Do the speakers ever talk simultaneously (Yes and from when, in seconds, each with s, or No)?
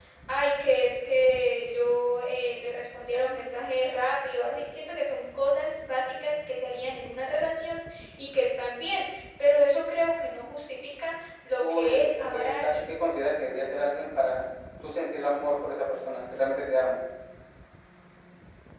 Yes, from 11.6 s